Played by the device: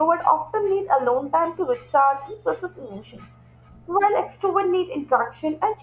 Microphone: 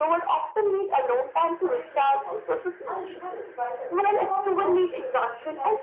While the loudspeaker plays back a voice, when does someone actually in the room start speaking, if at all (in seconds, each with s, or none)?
1.6 s